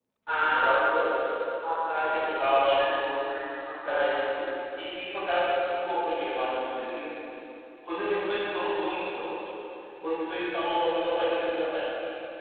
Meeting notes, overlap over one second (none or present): present